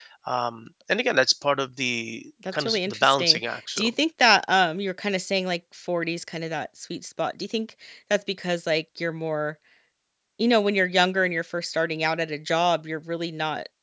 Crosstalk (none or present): present